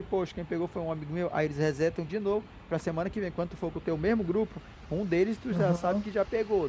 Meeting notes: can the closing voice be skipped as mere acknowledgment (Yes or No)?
Yes